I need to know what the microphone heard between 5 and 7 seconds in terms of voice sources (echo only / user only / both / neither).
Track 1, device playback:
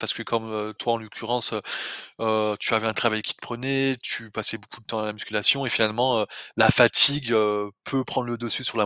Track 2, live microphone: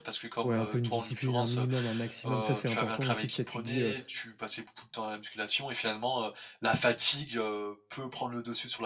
echo only